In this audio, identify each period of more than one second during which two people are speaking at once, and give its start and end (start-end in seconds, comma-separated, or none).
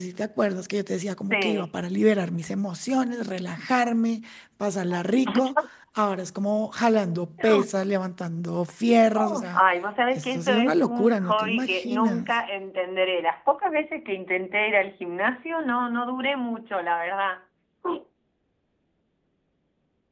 10.2-12.3